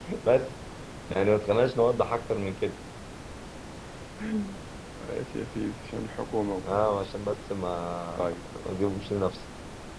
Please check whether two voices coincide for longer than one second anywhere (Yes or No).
No